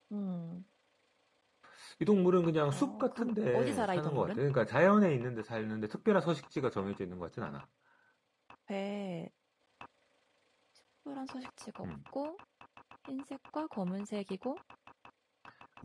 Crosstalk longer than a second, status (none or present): present